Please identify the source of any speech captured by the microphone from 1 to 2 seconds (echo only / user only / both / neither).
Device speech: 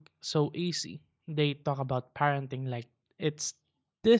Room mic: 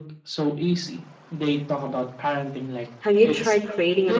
echo only